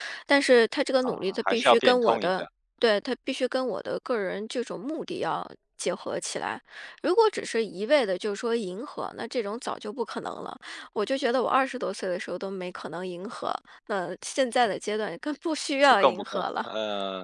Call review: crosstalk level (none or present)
present